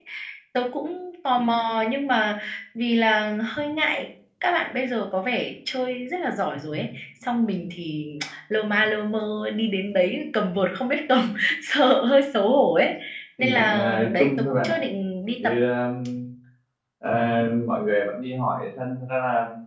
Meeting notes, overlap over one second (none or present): present